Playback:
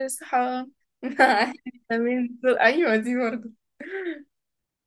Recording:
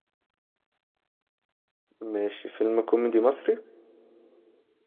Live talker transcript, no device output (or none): ماشي فيلم كوميدي مصري